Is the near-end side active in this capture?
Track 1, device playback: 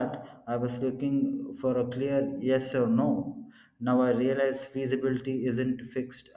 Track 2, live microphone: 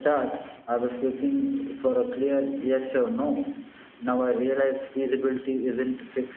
No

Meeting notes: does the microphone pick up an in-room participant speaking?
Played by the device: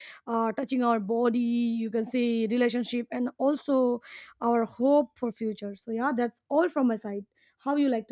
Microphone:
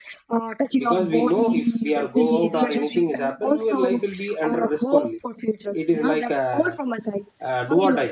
Yes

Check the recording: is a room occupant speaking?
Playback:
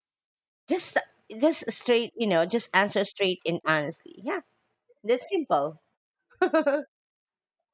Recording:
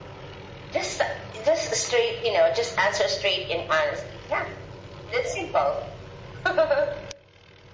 No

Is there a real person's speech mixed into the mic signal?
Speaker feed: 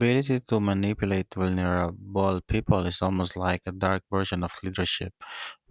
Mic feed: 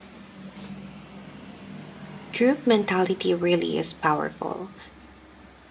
Yes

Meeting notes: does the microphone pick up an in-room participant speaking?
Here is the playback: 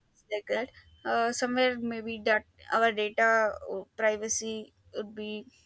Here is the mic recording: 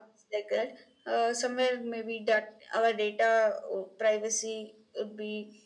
No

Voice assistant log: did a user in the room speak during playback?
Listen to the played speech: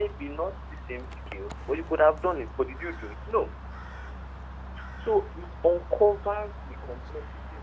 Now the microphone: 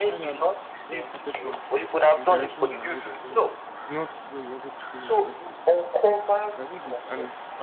Yes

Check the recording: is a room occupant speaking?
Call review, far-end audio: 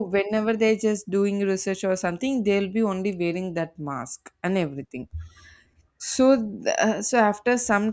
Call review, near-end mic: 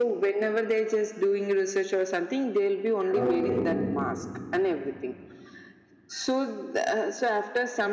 Yes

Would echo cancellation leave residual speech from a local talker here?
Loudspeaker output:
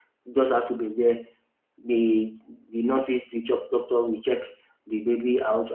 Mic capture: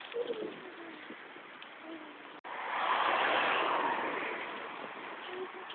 No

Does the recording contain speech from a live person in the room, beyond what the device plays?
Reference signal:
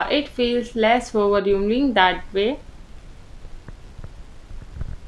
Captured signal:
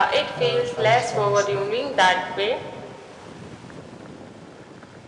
Yes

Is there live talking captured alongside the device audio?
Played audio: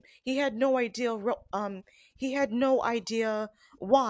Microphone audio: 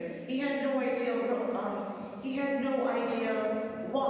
No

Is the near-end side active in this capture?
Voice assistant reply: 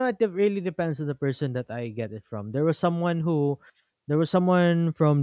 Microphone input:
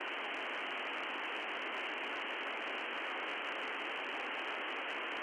No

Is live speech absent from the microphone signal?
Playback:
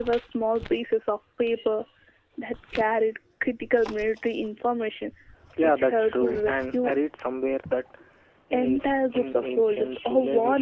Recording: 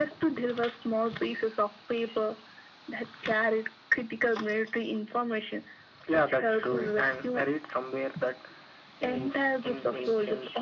Yes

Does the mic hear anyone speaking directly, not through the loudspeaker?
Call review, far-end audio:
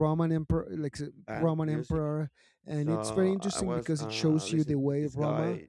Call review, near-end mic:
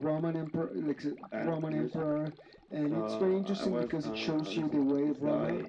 No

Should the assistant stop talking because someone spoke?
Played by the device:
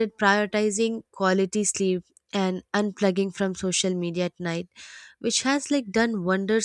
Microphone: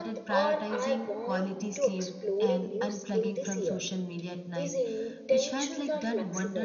Yes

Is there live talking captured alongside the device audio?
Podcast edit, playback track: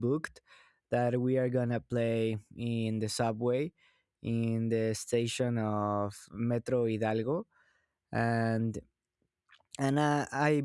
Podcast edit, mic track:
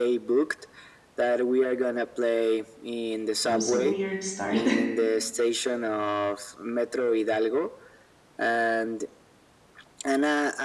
Yes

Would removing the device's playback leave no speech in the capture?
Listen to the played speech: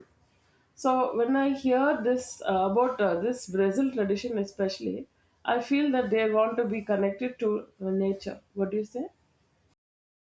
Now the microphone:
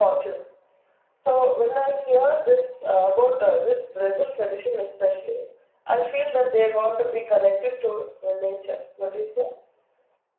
Yes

